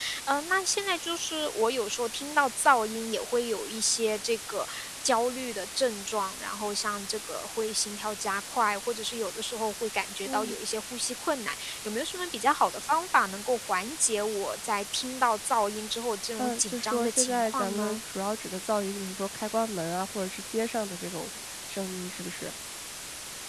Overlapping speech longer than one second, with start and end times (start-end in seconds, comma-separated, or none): 16.4-18.0